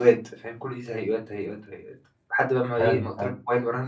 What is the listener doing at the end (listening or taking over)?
listening